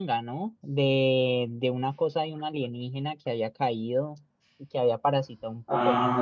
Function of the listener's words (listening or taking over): taking over